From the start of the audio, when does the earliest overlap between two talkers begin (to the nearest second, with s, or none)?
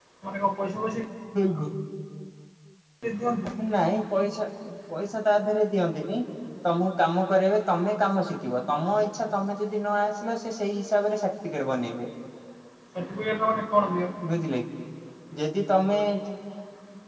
none